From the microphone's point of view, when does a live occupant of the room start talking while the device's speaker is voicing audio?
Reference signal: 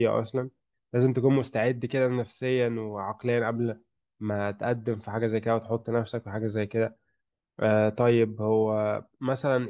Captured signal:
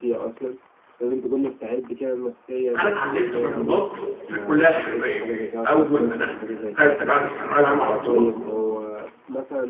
2.8 s

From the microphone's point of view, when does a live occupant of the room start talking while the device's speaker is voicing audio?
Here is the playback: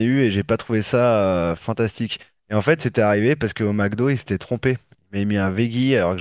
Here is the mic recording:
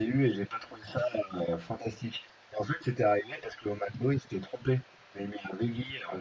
none

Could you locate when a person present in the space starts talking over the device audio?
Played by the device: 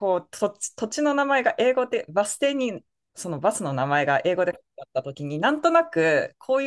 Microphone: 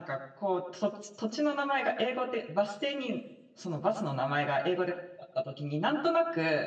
none

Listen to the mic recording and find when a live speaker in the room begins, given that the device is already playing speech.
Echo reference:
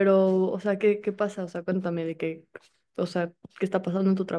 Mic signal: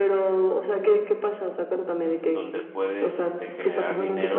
2.1 s

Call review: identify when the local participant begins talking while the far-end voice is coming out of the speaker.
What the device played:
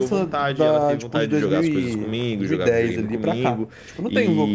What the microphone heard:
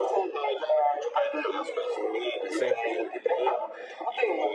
2.5 s

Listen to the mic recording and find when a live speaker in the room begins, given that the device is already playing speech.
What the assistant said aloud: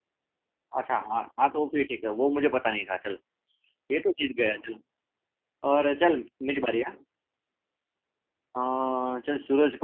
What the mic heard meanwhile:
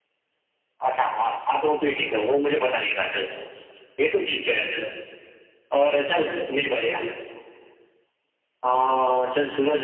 none

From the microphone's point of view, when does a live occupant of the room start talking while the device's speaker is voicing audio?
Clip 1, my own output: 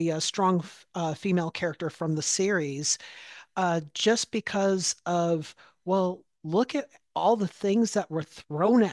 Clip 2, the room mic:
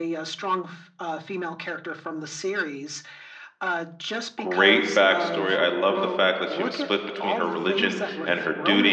4.4 s

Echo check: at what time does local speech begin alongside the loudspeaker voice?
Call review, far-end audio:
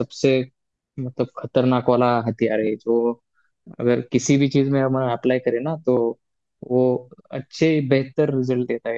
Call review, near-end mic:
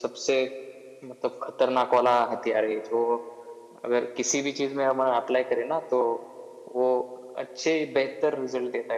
none

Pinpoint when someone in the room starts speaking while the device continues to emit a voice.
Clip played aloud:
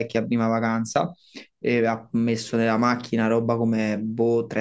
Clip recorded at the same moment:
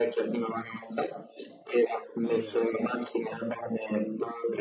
2.2 s

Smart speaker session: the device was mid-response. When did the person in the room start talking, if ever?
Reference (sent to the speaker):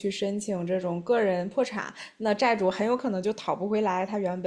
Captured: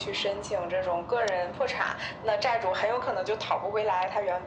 none

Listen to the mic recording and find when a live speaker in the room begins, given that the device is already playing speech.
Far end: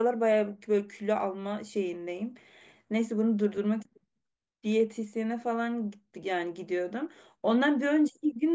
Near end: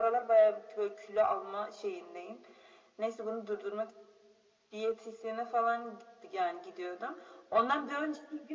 none

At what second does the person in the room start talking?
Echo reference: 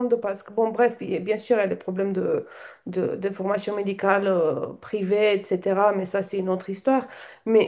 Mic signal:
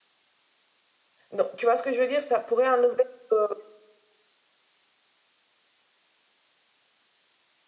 1.3 s

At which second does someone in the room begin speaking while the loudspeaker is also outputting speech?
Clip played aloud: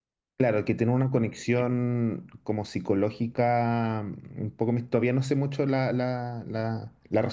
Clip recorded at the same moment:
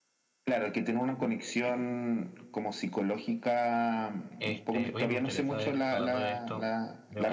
4.4 s

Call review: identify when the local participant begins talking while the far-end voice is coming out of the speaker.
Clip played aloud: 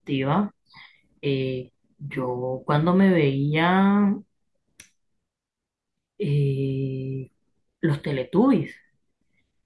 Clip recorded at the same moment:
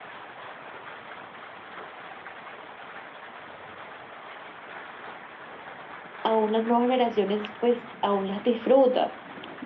6.2 s

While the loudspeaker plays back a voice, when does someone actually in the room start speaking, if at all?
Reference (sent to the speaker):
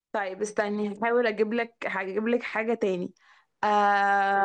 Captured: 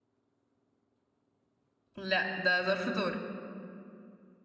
2.0 s

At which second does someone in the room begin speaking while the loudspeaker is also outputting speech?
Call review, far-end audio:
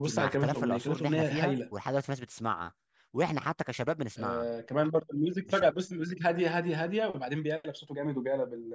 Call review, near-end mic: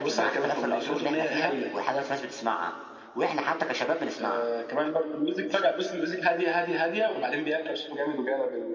none

